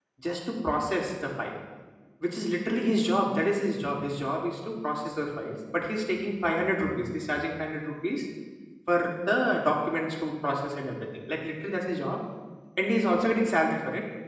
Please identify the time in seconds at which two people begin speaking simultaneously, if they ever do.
none

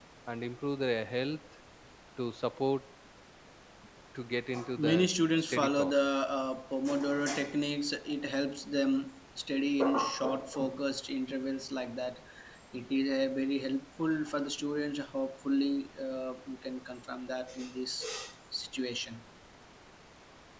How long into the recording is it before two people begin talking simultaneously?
5 s

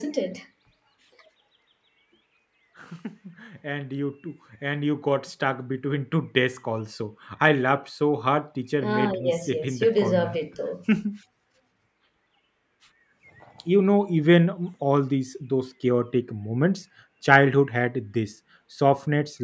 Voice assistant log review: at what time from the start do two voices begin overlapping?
9 s

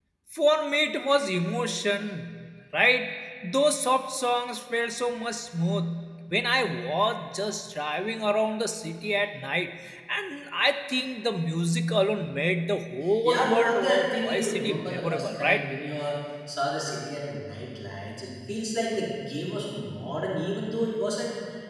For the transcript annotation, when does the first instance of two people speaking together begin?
13 s

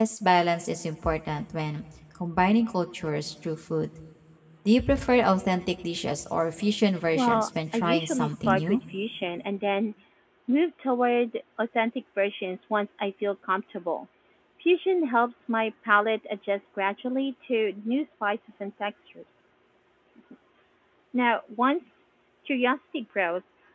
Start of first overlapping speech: 7 s

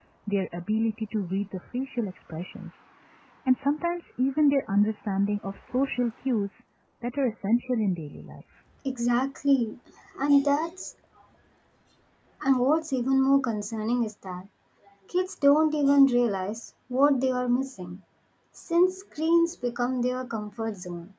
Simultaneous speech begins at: none

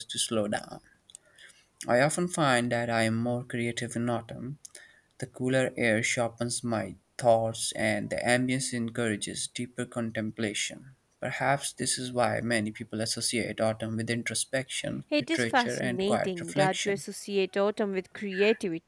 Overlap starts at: 15 s

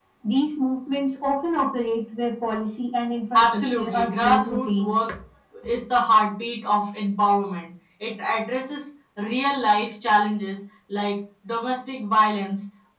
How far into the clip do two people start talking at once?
3 s

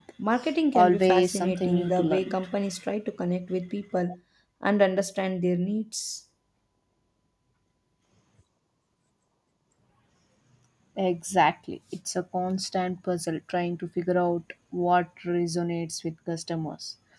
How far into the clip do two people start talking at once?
1 s

